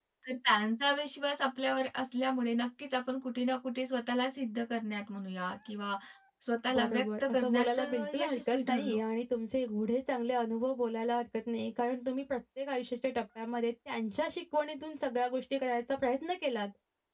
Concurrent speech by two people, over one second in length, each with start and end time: 6.8-9.0

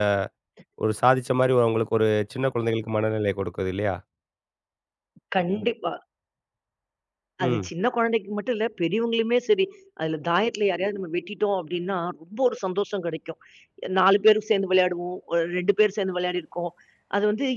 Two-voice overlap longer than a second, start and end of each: none

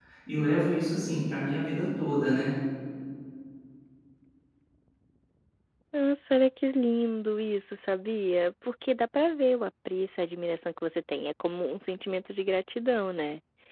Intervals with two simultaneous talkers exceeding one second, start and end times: none

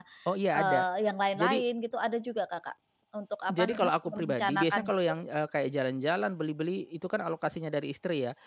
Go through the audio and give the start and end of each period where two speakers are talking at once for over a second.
3.5-4.9

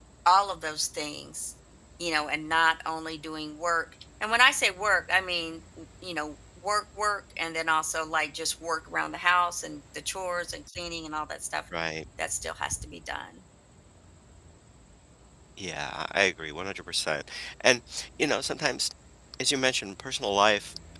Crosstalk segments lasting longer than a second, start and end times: none

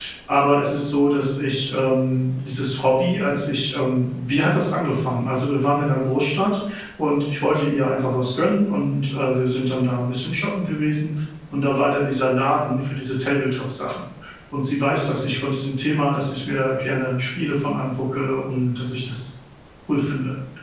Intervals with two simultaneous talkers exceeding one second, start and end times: none

